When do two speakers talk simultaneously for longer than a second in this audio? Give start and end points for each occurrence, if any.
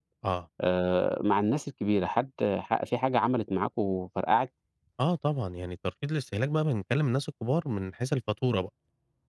none

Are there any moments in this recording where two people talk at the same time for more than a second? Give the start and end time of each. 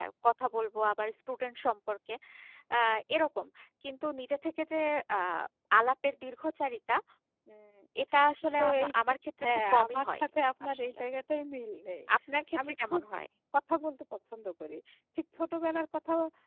8.6-10.2

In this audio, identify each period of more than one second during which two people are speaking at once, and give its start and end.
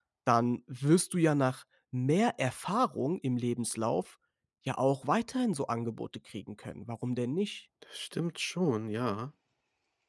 none

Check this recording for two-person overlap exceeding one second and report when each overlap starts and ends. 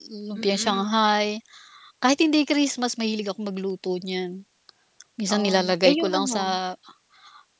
5.3-6.6

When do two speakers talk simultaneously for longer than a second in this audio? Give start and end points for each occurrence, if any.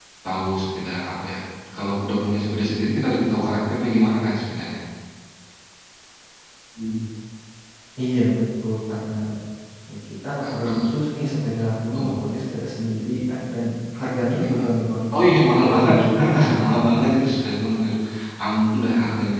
15.6-17.6

